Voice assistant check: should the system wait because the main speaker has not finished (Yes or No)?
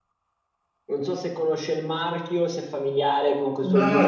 No